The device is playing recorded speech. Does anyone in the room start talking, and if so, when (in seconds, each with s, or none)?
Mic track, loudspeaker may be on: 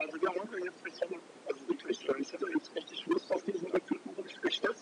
none